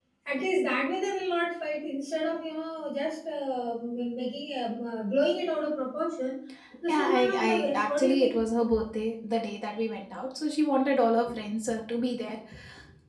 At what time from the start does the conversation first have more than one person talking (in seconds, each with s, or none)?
6.9 s